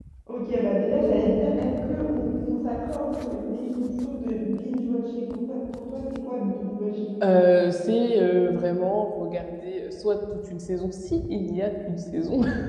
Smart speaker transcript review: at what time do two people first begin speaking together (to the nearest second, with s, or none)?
none